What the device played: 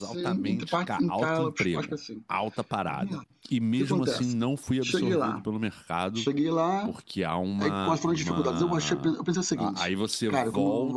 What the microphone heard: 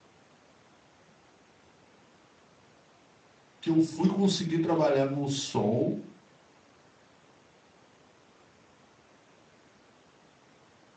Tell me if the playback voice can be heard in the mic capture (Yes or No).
No